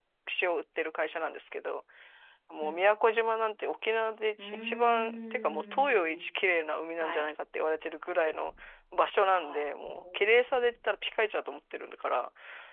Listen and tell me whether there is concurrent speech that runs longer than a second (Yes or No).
Yes